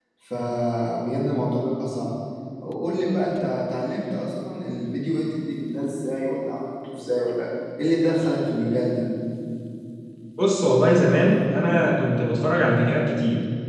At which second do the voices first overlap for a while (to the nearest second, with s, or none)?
none